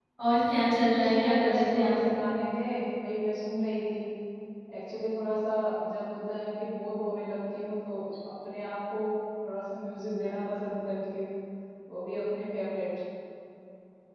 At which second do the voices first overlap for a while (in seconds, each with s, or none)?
0.9 s